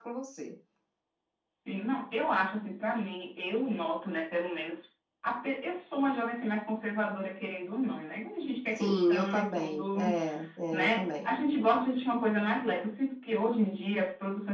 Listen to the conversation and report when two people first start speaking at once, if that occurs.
8.8 s

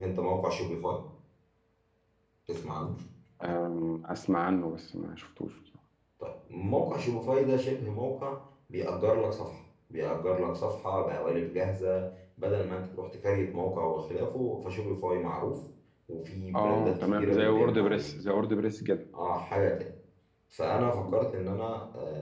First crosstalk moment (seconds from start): 16.6 s

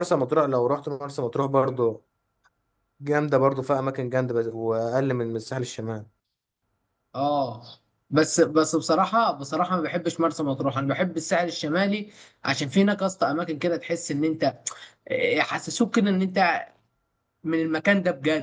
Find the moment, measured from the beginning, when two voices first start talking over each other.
none

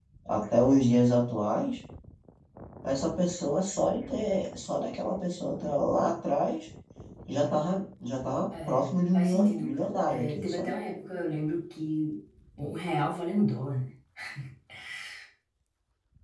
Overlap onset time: 8.5 s

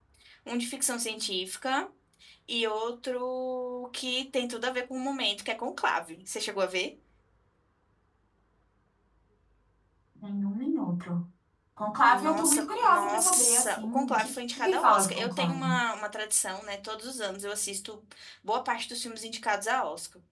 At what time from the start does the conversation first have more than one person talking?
12.1 s

